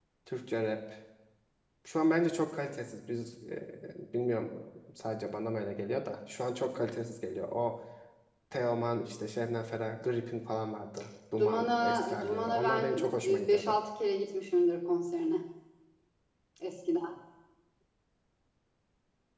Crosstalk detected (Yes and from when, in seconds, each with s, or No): Yes, from 11.4 s